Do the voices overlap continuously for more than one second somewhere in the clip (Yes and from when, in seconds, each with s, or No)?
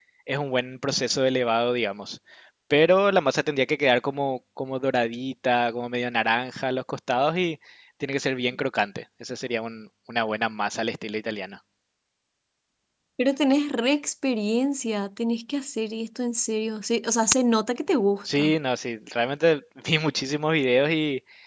No